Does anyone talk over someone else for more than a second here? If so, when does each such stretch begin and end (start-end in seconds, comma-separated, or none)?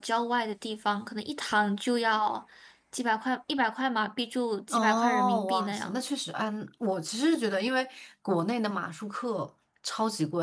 4.7-6.0